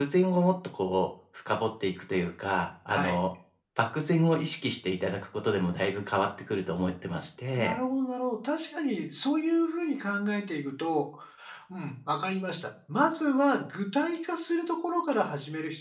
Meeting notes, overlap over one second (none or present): none